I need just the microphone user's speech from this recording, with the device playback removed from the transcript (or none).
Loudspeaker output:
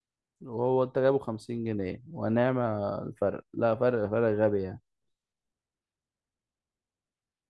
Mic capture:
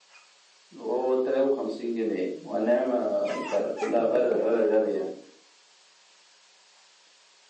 شو شفت الفيديوهات اللي هي بيعرضوها